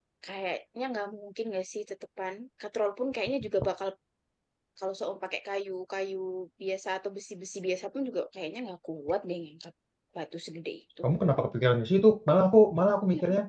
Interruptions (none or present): none